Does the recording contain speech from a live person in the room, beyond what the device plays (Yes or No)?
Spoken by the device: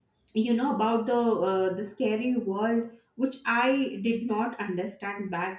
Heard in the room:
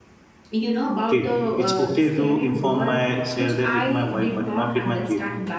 Yes